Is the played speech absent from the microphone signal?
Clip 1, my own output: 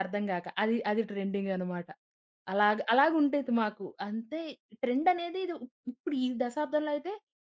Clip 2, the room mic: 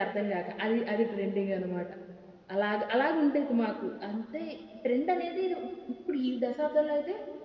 No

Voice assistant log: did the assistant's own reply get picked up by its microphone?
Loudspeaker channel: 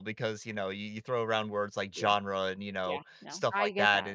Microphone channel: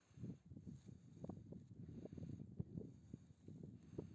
No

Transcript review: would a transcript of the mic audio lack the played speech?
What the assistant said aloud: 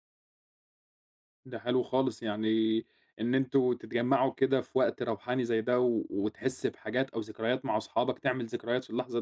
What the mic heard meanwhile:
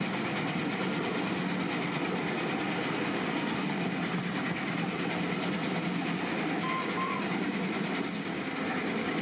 Yes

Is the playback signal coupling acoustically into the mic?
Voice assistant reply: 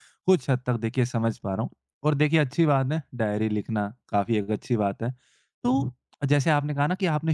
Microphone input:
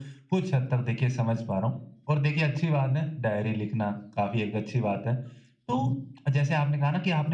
Yes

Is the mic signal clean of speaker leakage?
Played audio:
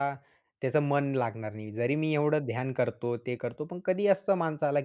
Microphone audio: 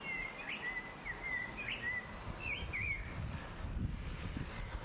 Yes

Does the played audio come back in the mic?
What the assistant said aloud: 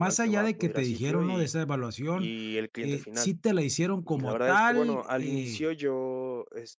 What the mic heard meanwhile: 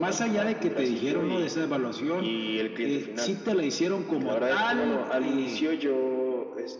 Yes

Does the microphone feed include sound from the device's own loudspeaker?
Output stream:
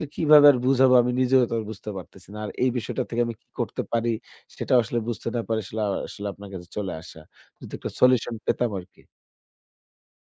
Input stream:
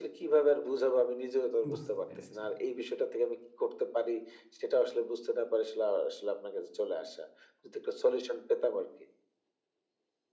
Yes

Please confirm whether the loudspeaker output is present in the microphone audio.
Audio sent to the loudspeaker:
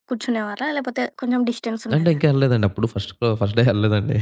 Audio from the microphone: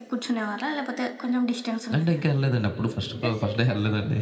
Yes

